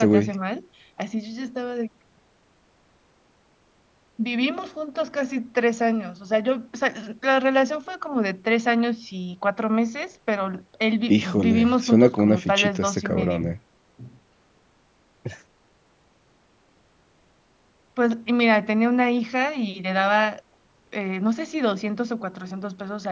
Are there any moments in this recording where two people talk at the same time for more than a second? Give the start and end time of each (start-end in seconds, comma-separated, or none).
11.1-13.5